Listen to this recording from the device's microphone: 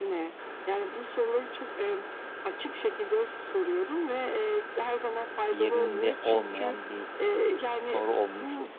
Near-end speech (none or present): present